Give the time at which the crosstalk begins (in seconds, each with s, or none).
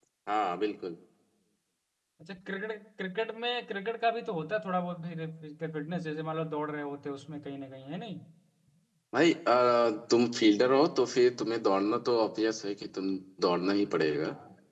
none